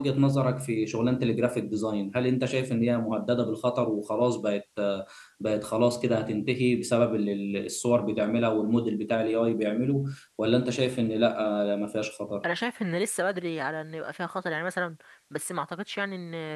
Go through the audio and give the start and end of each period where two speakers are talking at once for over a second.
none

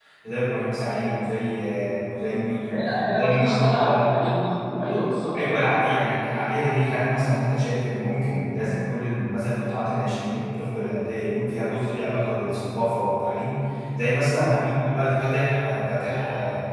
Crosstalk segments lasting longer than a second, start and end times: 2.7-4.2

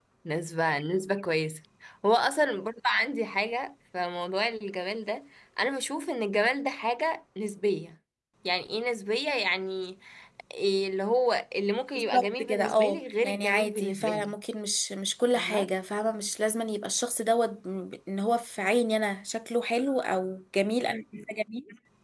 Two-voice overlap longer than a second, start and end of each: 11.9-14.3

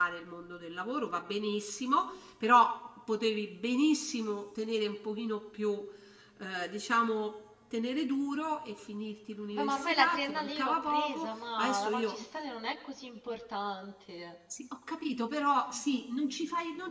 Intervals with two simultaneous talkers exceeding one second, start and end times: 9.5-12.2

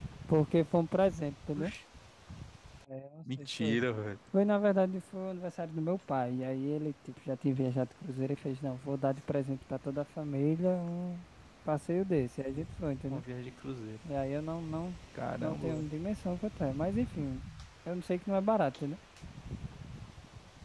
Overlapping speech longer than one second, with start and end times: none

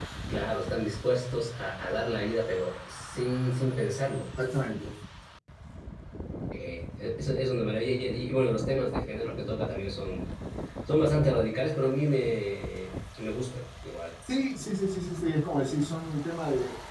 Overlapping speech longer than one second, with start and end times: none

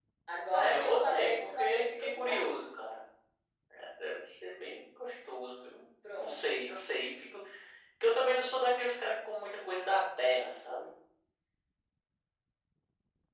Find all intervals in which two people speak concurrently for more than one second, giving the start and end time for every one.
0.5-2.4

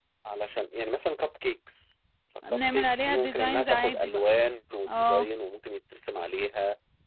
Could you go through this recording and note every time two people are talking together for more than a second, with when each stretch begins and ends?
2.5-4.2

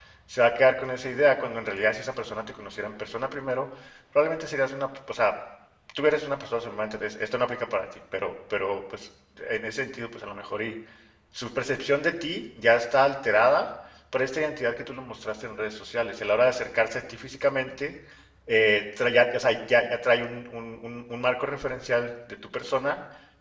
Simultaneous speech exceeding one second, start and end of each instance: none

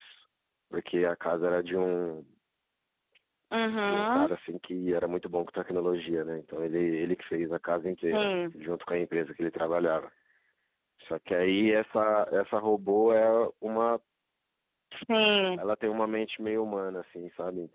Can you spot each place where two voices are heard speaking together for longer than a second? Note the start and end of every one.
none

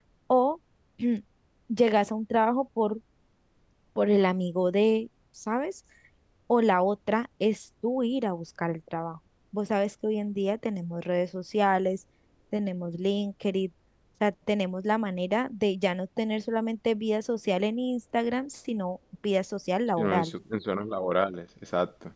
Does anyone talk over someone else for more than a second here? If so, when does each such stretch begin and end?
none

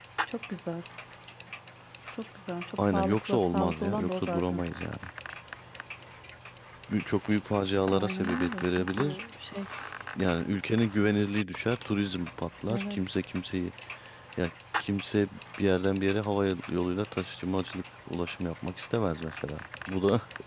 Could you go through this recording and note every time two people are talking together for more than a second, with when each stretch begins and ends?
2.8-4.6, 7.9-9.2

